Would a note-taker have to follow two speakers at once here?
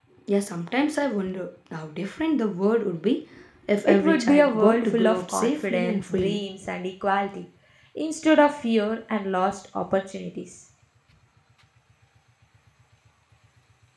Yes, from 3.9 s

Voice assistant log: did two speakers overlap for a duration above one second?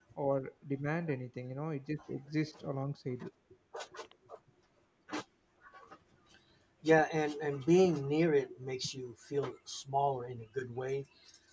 No

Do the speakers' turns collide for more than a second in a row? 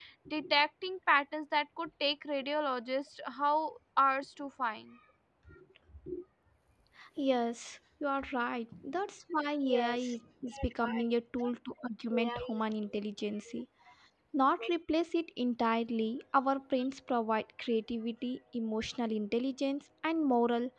No

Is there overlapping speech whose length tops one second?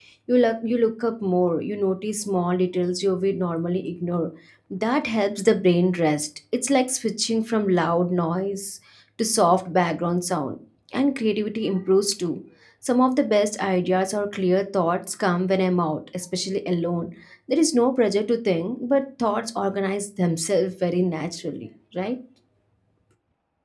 No

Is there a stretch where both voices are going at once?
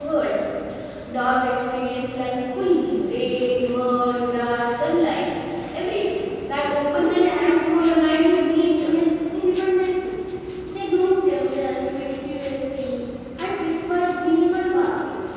Yes, from 7.0 s

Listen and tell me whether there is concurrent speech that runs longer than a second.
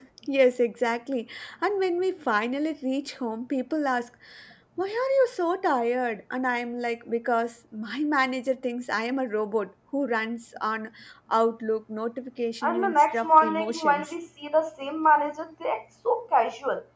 Yes, from 12.6 s

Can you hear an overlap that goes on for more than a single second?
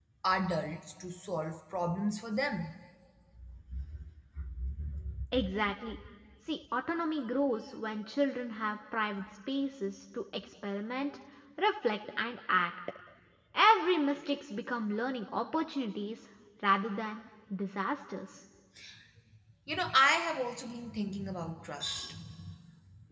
No

